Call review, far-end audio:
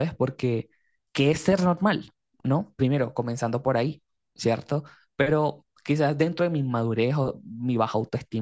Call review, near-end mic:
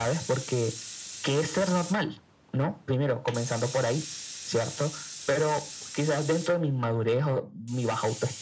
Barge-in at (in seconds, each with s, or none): none